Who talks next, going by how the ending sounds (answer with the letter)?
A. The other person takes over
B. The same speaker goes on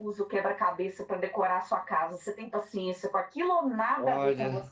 A